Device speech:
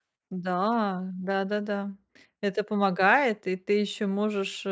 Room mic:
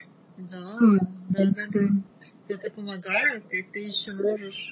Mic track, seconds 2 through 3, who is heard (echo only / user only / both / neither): echo only